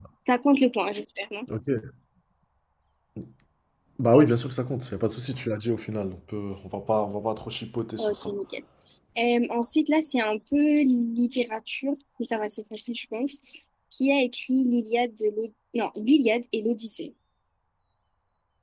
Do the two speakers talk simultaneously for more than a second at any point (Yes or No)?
No